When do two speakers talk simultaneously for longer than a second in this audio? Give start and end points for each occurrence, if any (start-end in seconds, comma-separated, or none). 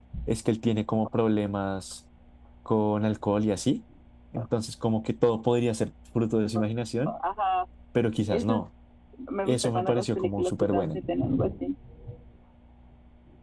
9.4-11.0